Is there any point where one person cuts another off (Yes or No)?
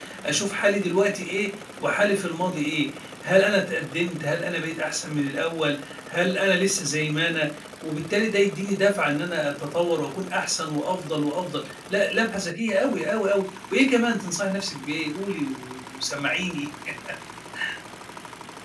No